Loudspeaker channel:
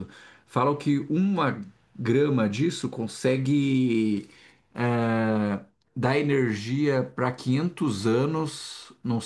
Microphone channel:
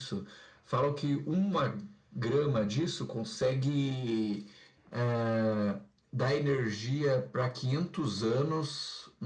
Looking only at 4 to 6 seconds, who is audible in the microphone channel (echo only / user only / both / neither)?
echo only